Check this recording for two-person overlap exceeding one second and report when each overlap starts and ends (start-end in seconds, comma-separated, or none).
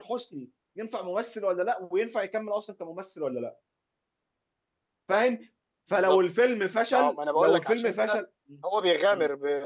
6.9-8.2